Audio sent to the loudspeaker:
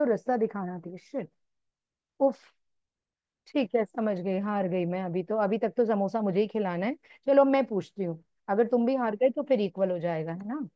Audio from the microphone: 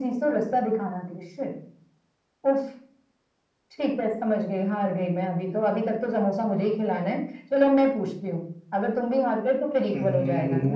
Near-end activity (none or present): present